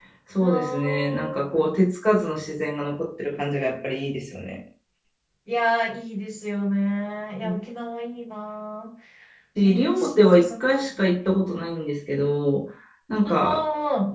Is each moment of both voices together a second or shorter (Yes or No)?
No